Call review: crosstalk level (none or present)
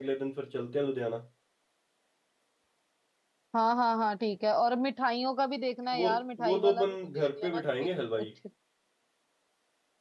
present